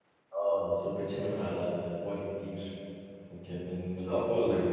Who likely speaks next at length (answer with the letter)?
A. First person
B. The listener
B